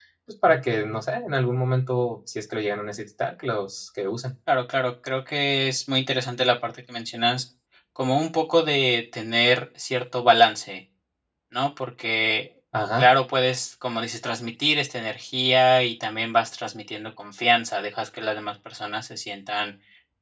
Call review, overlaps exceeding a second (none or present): none